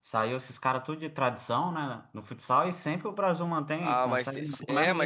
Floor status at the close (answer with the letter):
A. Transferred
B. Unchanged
A